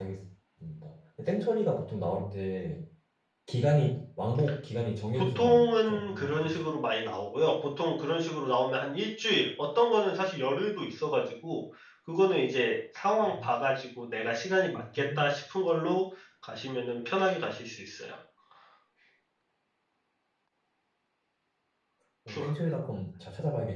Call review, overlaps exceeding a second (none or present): present